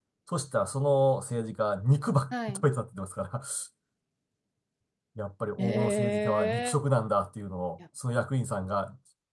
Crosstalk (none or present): present